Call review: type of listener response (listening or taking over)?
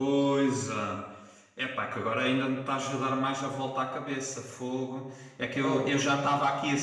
listening